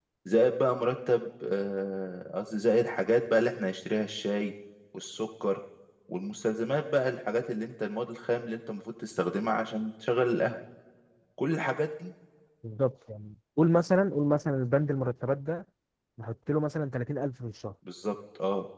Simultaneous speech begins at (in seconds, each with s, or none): none